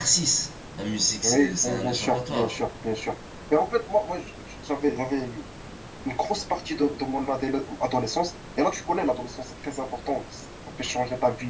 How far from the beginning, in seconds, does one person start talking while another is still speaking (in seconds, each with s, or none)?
1.2 s